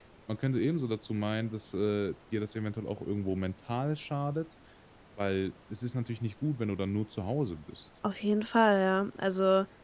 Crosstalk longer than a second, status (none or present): none